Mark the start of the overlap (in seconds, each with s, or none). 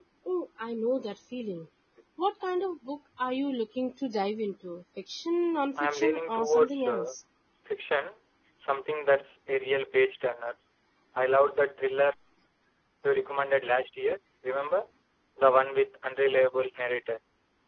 5.8 s